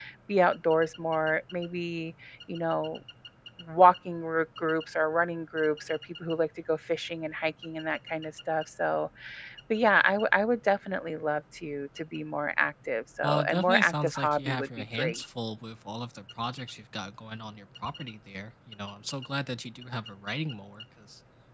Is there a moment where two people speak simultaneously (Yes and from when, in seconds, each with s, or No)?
Yes, from 13.2 s